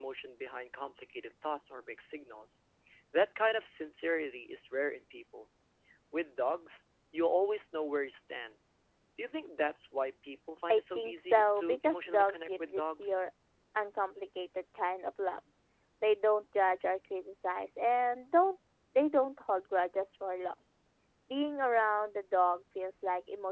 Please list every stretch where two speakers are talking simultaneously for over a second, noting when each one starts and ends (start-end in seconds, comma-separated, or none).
10.7-13.1